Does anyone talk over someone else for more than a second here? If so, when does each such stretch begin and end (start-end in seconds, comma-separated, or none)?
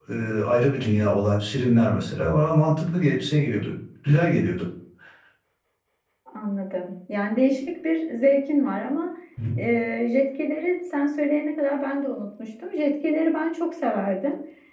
none